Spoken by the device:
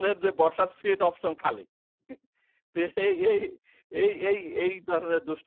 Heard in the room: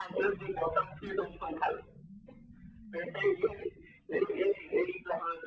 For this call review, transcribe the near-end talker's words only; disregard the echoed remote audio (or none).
none